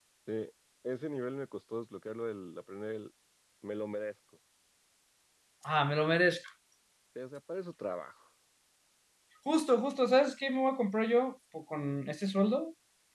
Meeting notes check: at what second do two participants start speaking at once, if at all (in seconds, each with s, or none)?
none